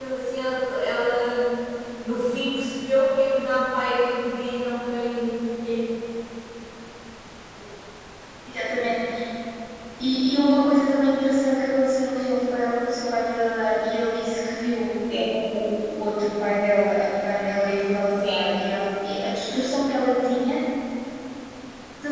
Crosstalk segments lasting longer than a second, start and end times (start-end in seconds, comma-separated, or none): none